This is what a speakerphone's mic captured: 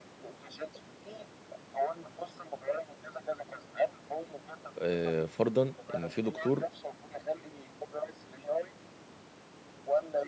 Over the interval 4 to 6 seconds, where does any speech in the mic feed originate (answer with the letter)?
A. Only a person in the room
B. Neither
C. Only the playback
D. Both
D